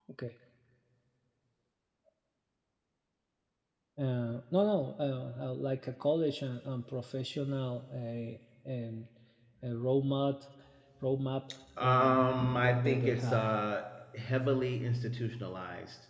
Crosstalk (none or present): present